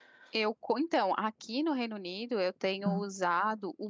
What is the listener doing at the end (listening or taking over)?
listening